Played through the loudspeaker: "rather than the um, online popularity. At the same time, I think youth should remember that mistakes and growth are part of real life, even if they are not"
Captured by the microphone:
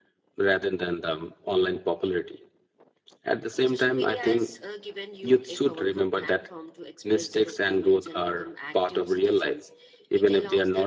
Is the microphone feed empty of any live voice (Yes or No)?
No